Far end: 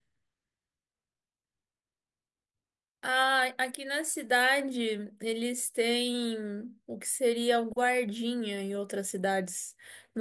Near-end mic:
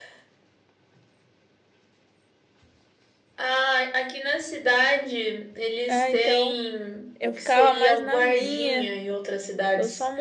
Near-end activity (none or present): present